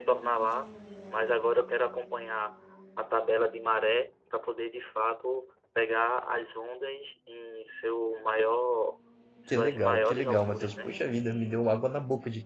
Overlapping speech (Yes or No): Yes